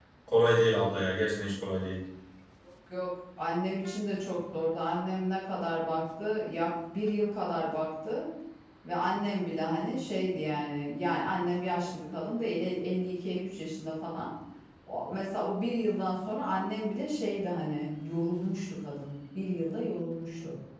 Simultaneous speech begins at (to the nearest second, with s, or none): none